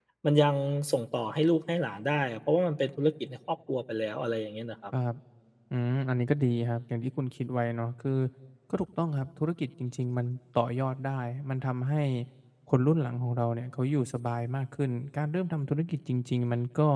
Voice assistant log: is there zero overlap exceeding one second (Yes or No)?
Yes